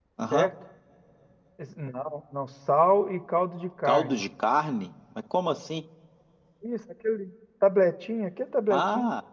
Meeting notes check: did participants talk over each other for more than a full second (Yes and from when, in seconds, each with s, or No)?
No